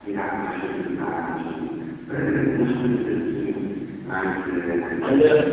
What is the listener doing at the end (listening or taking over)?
taking over